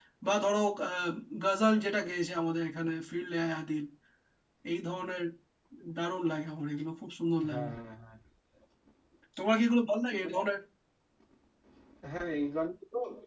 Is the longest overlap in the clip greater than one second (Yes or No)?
No